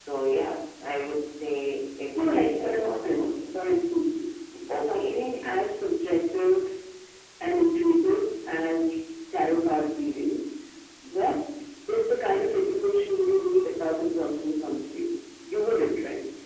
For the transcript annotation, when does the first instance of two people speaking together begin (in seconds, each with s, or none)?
2.2 s